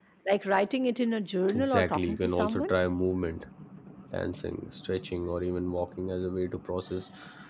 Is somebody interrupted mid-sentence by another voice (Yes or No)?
Yes